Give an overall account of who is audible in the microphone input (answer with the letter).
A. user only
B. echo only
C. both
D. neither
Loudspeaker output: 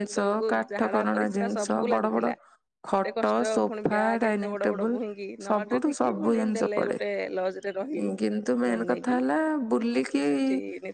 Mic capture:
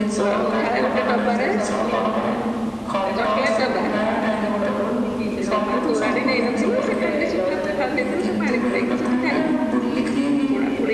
C